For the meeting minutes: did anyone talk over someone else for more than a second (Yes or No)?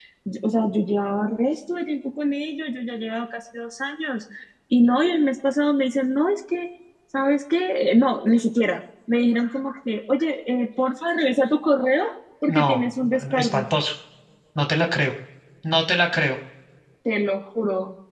Yes